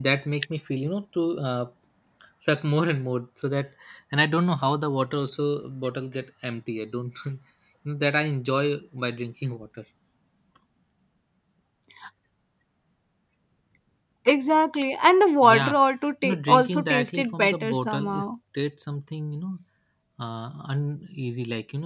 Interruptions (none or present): present